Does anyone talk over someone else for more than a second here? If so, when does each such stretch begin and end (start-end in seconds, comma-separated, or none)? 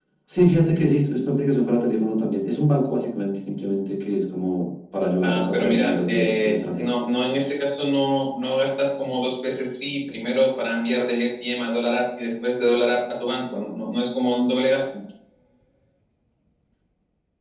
5.2-6.9